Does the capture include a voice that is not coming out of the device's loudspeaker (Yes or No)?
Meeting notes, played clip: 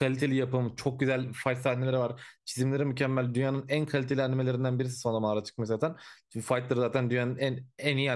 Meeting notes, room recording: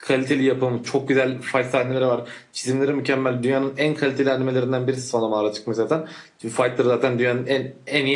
No